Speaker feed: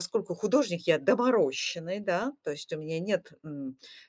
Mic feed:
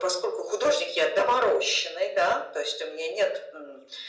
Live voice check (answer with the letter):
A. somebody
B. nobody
B